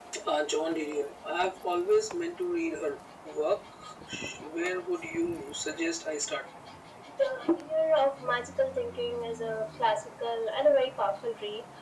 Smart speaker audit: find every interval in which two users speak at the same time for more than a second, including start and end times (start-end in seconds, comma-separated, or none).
none